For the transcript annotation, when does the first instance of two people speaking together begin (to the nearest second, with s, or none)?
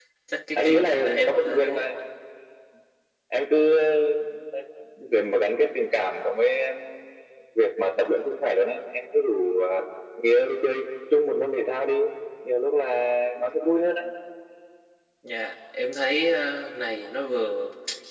1 s